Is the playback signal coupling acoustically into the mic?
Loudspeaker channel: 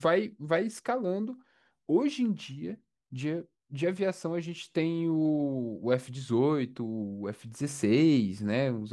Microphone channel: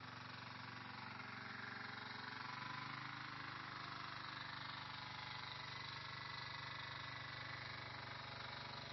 No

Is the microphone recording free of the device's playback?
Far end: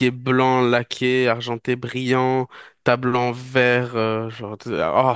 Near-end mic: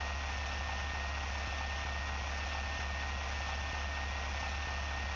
Yes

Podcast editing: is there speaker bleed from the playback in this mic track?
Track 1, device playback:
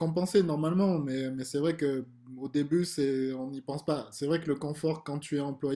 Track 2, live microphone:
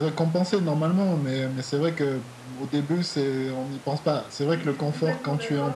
Yes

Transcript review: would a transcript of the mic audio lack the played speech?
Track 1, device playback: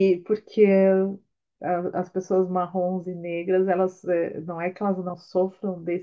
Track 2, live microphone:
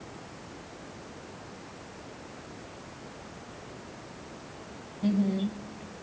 Yes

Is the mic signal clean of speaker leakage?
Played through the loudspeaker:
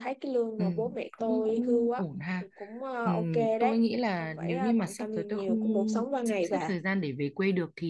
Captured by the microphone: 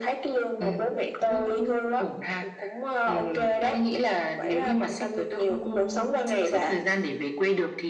No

